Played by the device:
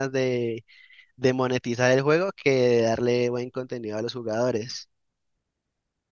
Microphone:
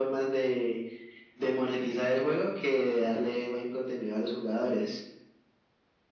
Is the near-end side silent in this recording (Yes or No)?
Yes